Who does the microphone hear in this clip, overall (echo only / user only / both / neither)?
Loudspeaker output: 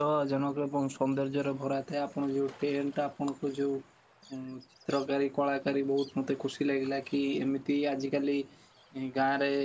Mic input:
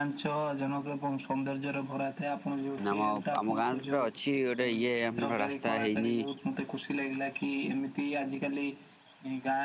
both